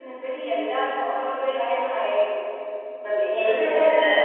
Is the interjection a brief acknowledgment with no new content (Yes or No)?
Yes